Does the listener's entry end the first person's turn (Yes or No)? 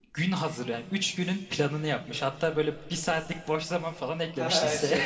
Yes